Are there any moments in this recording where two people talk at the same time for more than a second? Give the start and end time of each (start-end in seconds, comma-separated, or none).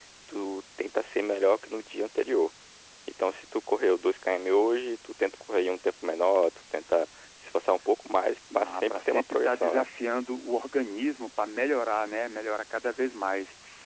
8.6-9.8